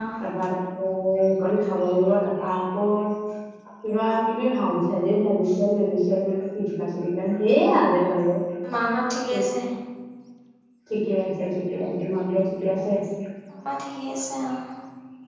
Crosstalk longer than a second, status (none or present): none